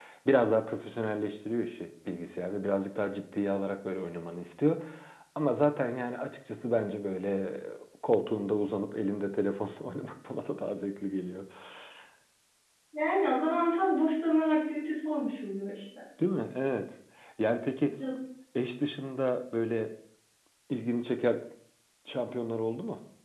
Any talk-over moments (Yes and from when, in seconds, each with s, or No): No